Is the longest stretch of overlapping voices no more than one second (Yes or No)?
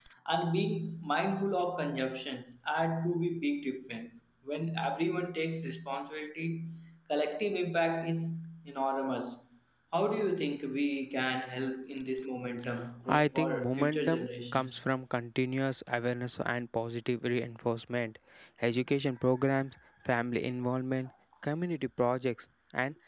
No